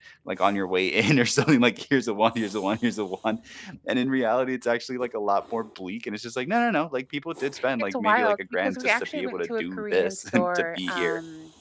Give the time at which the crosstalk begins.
8 s

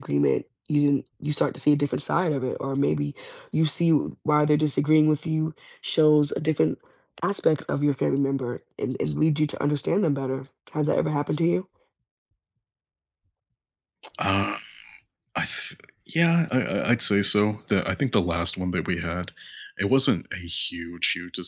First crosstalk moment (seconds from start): none

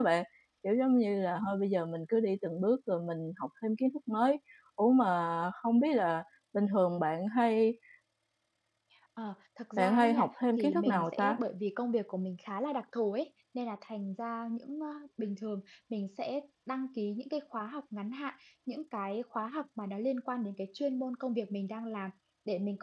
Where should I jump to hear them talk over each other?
10 s

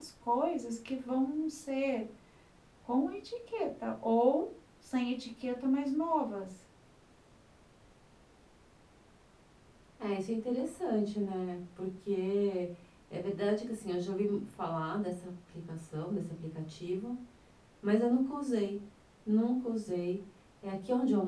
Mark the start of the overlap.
none

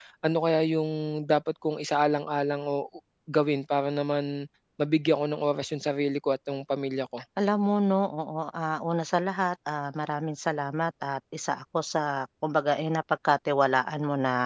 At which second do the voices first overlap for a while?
none

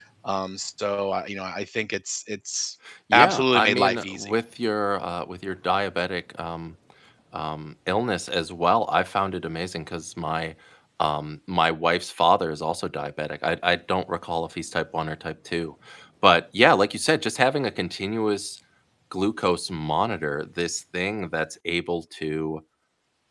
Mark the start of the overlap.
3 s

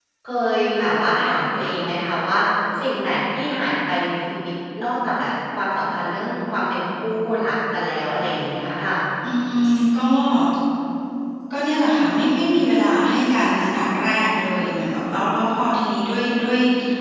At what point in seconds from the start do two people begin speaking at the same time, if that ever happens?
none

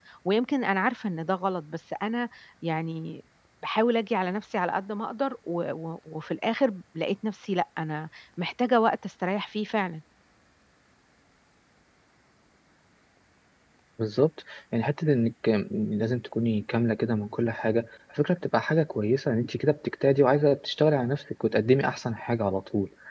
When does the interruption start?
none

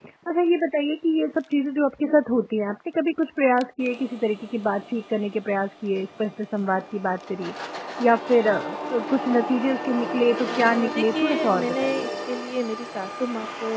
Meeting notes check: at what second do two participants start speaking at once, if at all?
10 s

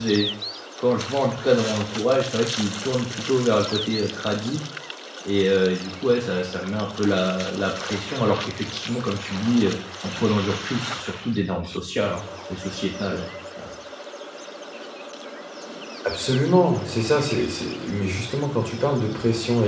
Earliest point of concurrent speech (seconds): none

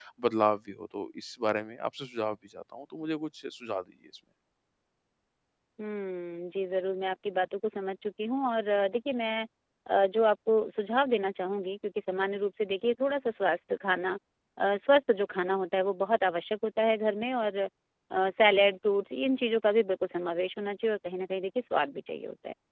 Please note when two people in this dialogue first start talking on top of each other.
none

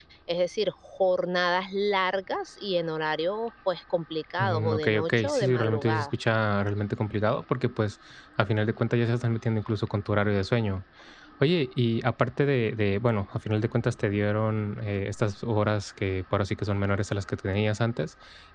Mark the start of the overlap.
4 s

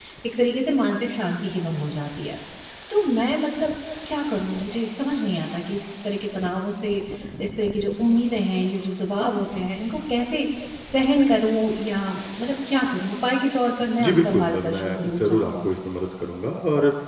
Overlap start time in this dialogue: 14 s

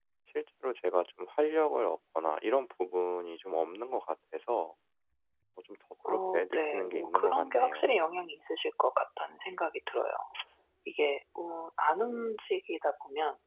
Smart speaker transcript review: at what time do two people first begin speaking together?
6 s

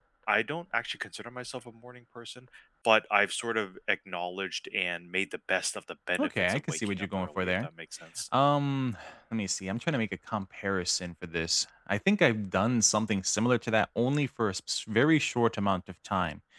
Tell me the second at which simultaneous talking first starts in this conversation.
6 s

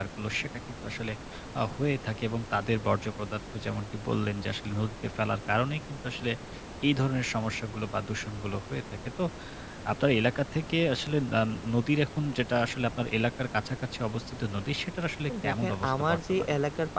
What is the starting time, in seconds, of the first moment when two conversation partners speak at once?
15 s

